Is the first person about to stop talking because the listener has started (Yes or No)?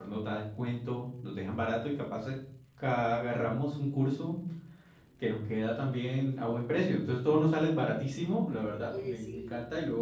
No